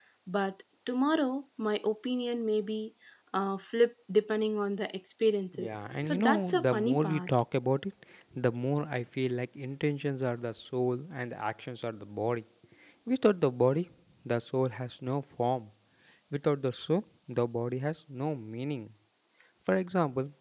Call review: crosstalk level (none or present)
present